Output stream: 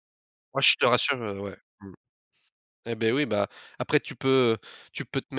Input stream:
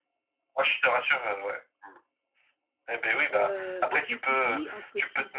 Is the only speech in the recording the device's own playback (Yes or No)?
No